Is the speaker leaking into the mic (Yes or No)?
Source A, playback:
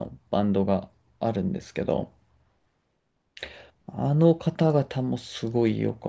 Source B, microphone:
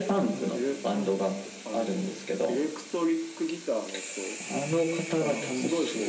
Yes